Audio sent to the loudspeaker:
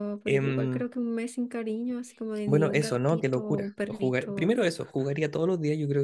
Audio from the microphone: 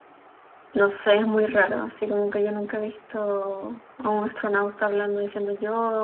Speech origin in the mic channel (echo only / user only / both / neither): user only